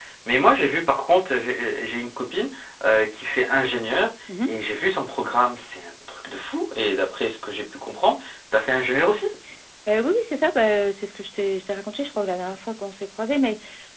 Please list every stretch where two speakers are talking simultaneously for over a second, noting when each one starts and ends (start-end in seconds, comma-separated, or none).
none